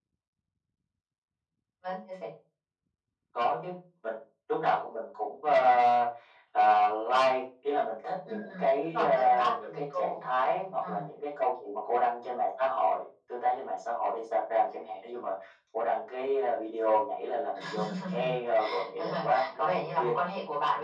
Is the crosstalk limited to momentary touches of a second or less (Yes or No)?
No